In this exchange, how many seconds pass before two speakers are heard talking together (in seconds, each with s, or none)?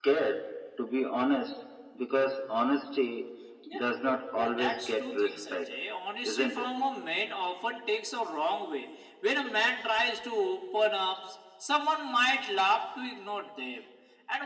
4.4 s